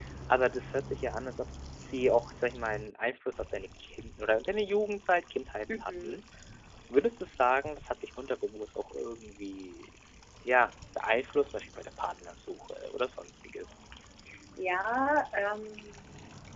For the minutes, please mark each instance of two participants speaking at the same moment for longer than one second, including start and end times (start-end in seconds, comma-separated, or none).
none